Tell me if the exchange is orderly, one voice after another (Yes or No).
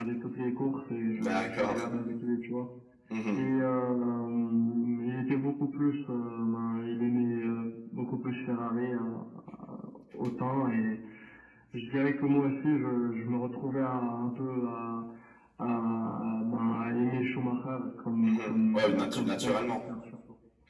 No